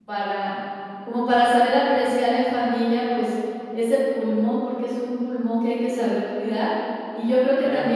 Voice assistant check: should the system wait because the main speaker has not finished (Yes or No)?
Yes